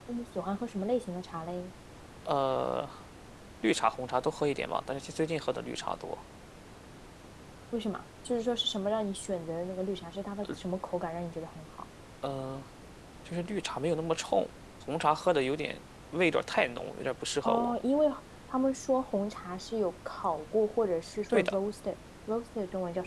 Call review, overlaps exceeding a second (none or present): none